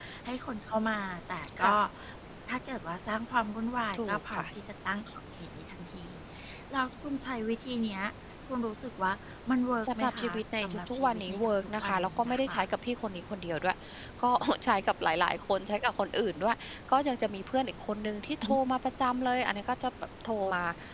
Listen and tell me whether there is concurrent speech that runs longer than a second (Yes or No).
Yes